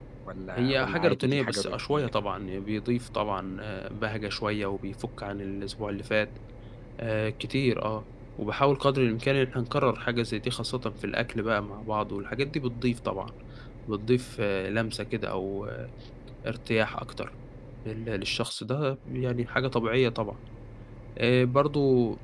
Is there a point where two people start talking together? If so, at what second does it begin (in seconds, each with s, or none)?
0.5 s